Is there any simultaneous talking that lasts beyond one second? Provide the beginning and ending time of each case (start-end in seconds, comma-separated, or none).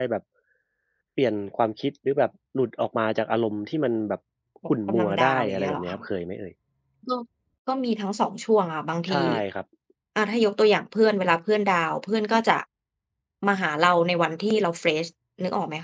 4.7-6.0